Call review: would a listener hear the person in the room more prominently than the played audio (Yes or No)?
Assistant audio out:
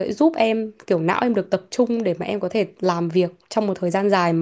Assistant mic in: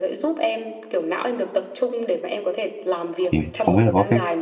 Yes